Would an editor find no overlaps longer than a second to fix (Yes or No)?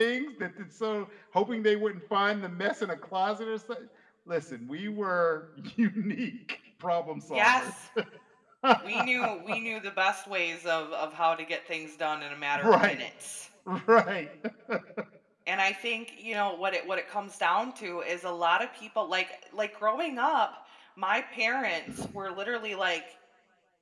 Yes